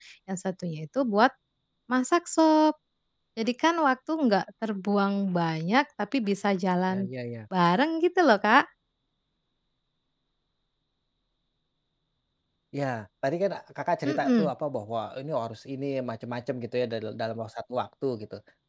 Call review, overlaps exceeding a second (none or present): none